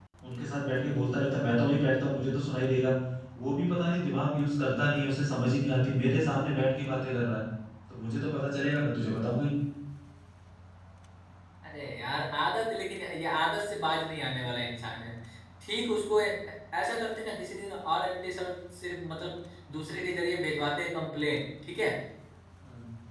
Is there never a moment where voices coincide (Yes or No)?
Yes